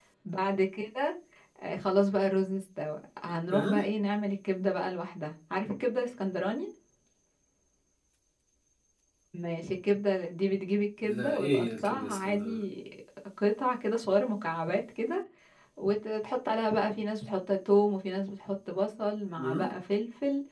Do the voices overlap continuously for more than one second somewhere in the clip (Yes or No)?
Yes